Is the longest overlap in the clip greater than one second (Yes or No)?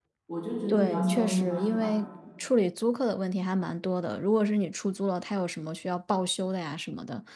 Yes